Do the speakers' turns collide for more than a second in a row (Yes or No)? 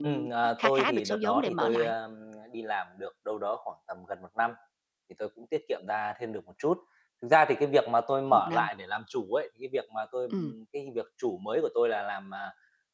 Yes